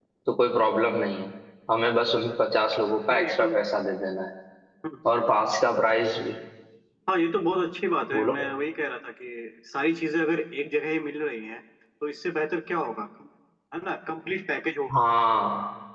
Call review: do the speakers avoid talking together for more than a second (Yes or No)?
Yes